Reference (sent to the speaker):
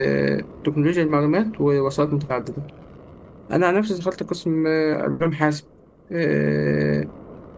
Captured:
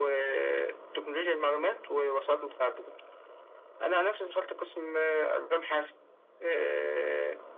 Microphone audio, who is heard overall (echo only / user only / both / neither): echo only